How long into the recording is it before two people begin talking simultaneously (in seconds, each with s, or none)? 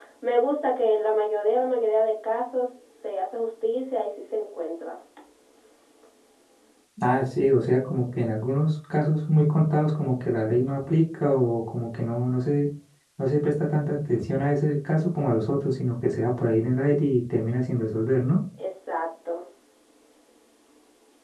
none